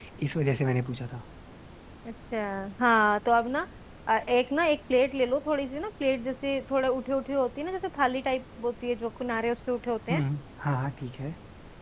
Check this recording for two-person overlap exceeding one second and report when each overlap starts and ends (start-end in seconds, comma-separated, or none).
none